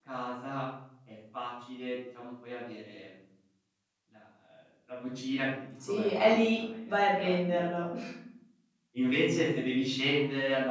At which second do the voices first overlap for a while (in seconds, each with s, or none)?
5.8 s